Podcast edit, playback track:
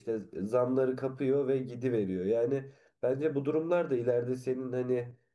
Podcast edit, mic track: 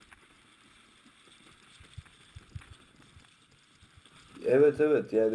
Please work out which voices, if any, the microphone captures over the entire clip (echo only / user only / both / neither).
user only